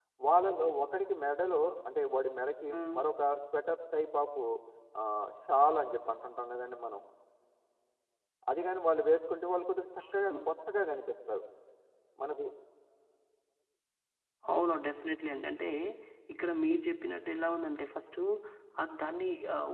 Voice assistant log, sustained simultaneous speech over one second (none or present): none